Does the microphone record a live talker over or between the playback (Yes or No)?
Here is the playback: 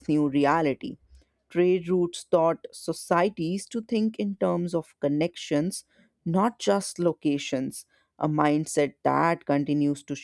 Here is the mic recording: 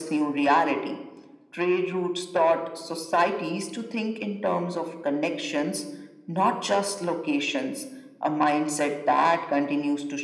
No